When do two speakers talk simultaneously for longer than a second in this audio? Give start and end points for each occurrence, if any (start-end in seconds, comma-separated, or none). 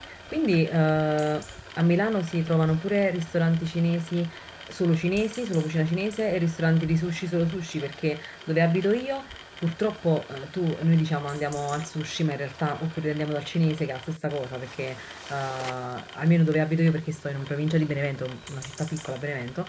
none